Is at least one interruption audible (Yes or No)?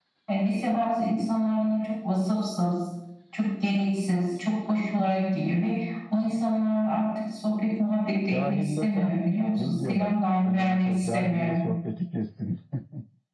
Yes